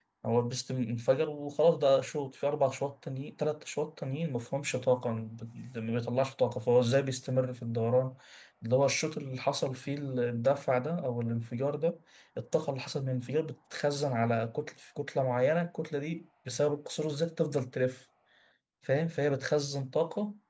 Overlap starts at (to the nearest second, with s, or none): none